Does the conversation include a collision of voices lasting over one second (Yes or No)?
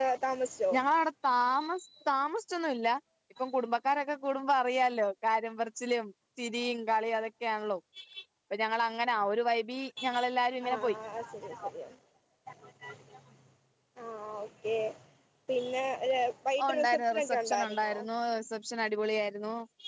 Yes